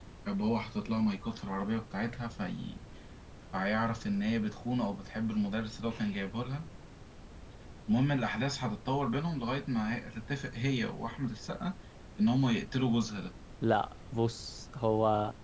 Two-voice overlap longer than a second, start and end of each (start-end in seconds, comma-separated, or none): none